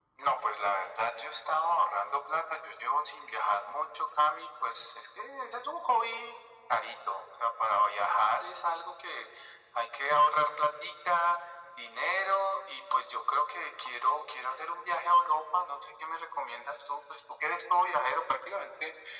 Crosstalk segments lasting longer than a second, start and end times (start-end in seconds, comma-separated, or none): none